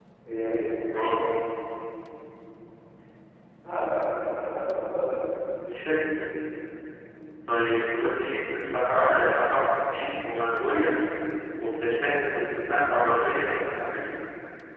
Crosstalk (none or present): none